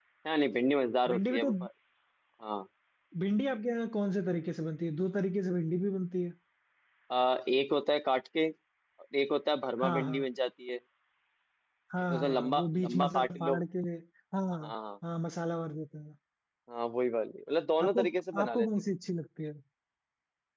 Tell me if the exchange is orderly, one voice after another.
No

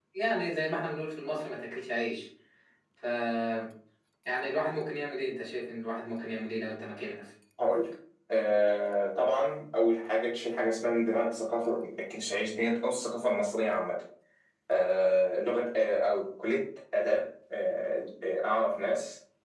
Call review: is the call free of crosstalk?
Yes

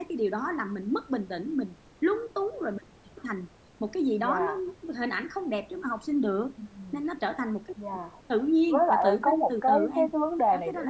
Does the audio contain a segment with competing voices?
Yes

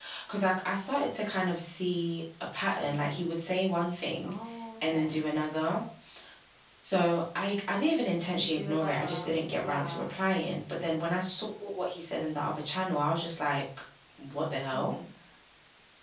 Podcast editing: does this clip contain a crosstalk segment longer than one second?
Yes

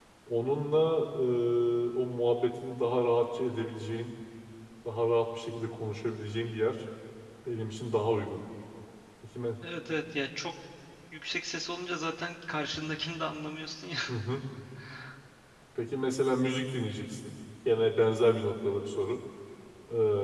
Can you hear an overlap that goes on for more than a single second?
No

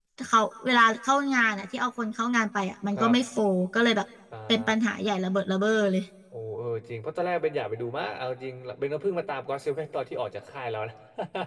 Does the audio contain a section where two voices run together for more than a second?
No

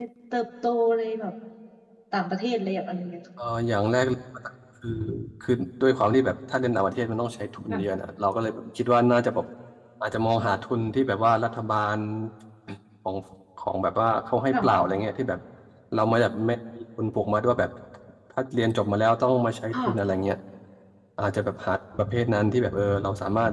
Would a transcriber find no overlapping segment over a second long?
Yes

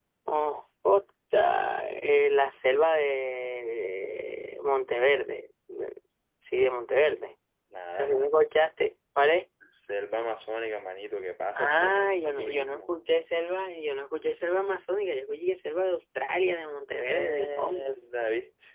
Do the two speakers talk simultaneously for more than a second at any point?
Yes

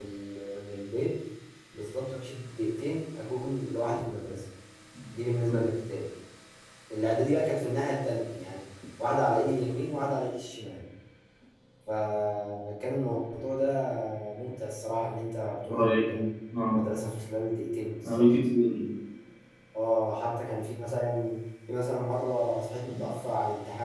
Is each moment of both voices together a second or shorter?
Yes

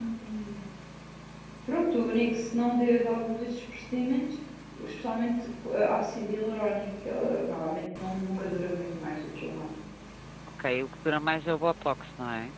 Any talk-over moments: No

